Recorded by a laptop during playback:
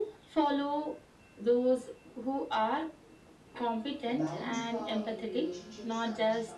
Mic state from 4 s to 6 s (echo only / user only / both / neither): both